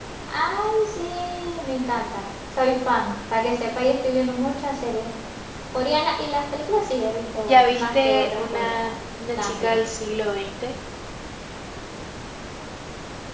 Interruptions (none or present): present